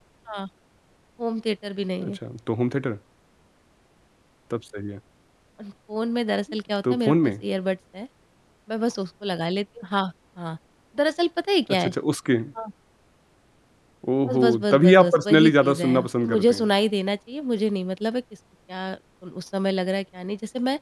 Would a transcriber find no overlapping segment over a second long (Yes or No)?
No